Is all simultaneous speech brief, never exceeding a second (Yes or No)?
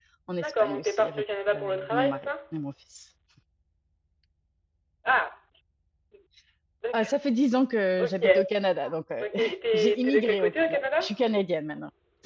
No